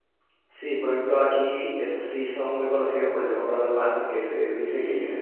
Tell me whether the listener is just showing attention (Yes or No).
Yes